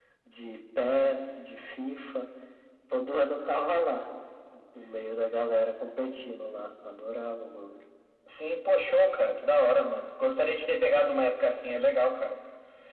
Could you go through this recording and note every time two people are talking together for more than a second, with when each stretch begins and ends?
none

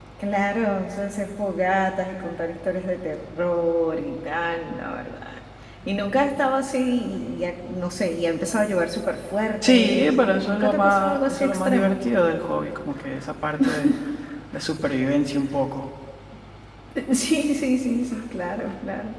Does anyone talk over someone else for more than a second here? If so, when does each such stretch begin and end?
9.6-12.0

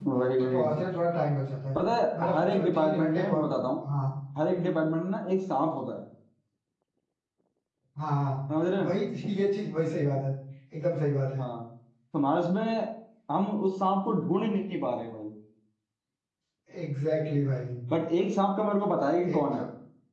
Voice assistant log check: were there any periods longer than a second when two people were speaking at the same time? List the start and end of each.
2.2-3.4

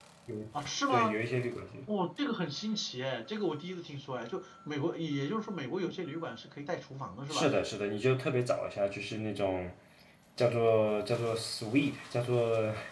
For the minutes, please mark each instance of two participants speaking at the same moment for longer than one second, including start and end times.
none

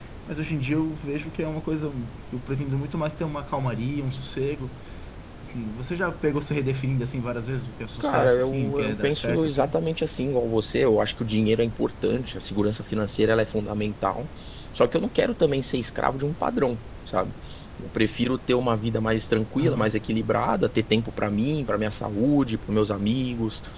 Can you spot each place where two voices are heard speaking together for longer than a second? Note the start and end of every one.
8.0-9.7

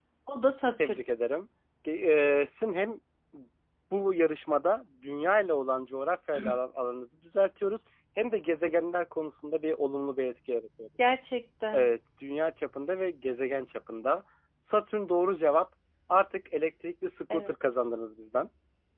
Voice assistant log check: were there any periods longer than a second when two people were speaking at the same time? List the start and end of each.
none

